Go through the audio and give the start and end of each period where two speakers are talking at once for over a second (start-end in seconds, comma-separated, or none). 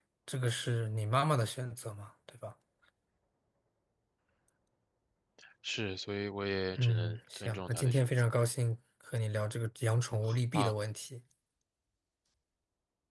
6.8-8.0